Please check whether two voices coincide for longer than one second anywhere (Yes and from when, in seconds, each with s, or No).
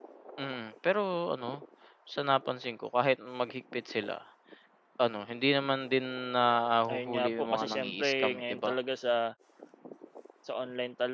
Yes, from 6.9 s